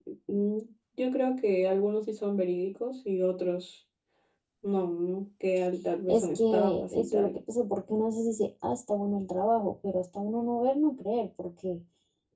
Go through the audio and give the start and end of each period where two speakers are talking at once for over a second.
6.1-7.4

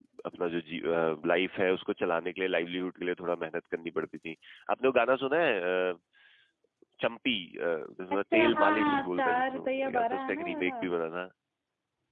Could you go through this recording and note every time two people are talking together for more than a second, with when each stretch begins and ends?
8.1-10.7

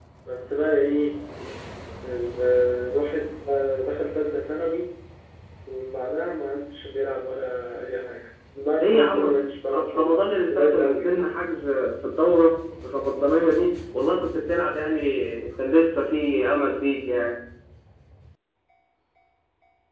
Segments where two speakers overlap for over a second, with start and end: 9.7-11.3

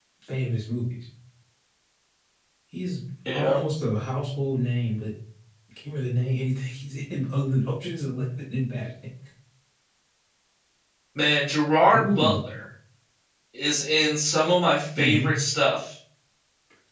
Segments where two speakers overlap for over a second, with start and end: none

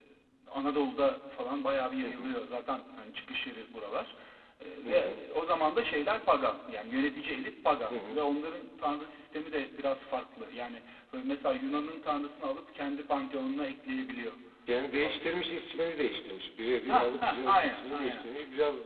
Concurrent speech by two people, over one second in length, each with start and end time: 16.9-18.3

